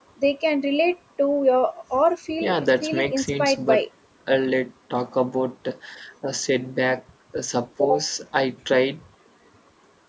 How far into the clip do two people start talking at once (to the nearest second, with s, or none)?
2 s